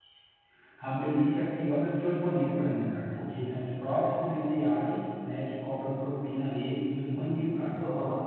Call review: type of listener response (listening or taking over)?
taking over